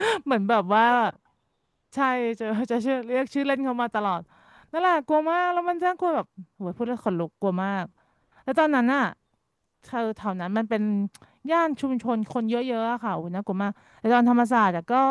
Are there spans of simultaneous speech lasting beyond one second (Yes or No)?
No